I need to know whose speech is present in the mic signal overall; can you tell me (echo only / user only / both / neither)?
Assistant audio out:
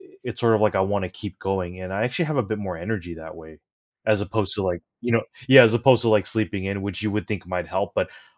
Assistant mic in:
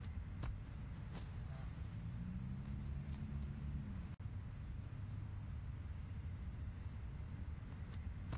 neither